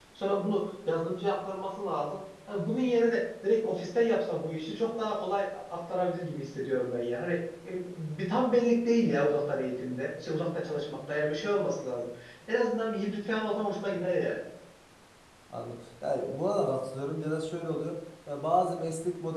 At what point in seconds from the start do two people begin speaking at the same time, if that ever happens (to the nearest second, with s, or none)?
none